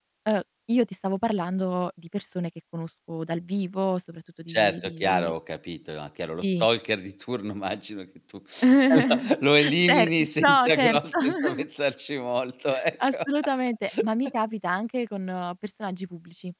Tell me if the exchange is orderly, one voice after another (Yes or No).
No